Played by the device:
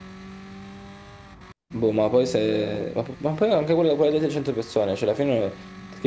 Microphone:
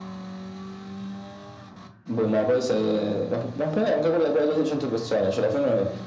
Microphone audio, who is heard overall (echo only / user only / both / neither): echo only